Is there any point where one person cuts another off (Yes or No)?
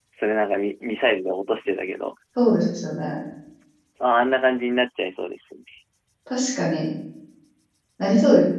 No